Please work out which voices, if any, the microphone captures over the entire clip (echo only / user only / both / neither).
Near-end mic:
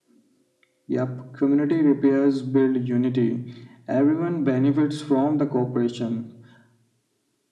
echo only